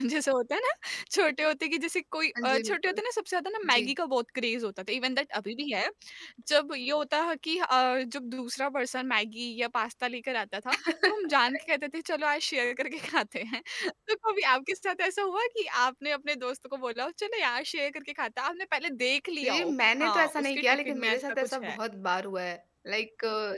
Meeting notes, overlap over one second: present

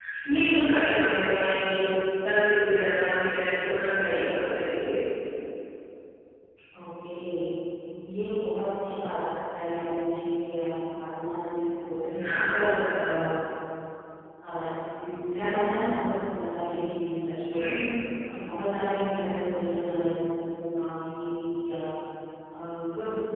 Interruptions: none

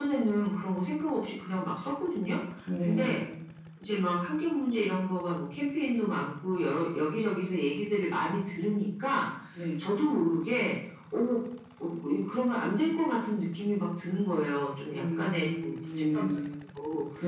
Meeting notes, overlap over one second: present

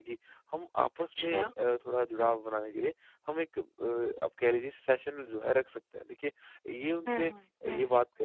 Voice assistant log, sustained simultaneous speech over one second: none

